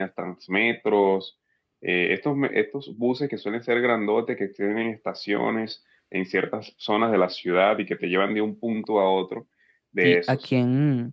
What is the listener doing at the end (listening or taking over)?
taking over